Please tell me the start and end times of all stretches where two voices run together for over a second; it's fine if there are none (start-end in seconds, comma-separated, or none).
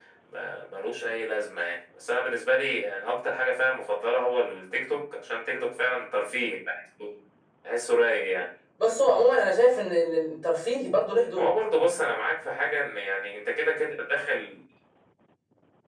none